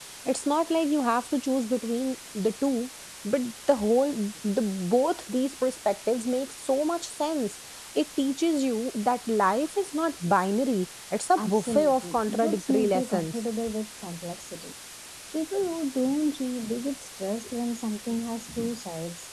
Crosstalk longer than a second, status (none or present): present